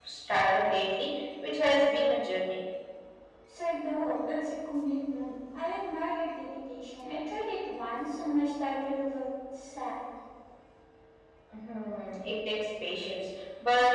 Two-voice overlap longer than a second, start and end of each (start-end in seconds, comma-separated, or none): none